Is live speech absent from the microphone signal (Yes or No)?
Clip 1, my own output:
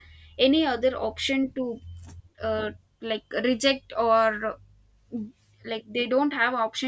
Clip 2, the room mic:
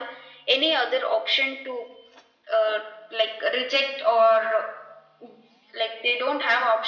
Yes